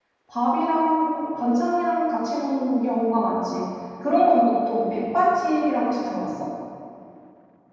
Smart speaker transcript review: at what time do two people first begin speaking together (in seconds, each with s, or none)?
none